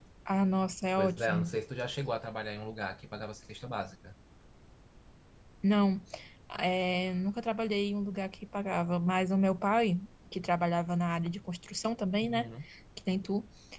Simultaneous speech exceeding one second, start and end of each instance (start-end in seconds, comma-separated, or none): none